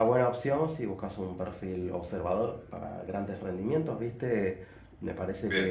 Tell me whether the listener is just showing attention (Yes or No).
Yes